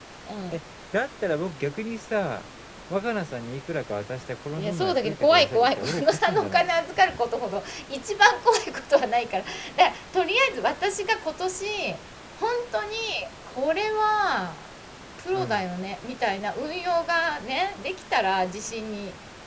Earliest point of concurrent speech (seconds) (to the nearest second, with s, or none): 5 s